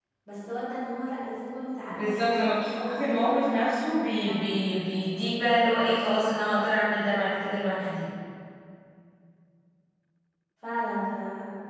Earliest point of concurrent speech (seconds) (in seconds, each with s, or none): 1.9 s